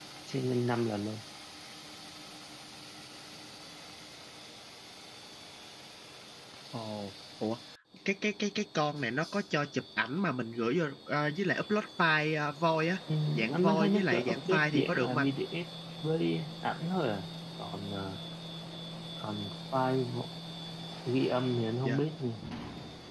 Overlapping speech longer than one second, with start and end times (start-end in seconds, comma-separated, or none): 13.5-15.3